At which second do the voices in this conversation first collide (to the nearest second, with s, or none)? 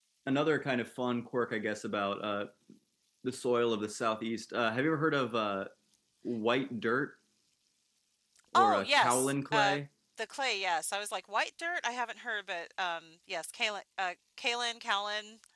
9 s